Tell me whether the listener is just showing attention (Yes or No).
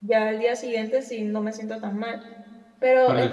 Yes